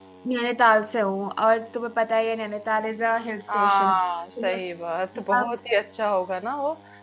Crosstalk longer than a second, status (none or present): none